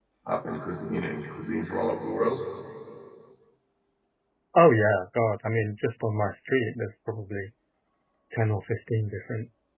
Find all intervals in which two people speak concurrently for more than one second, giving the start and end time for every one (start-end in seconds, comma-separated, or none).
none